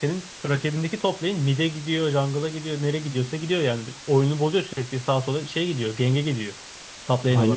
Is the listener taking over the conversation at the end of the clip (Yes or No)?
Yes